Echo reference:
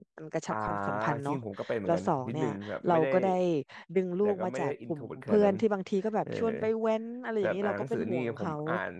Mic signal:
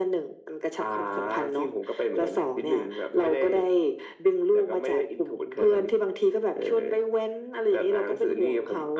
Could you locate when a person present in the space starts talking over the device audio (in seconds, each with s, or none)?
none